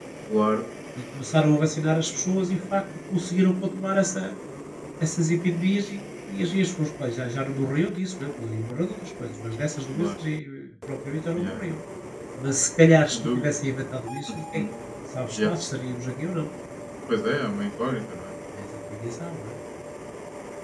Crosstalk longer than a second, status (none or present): none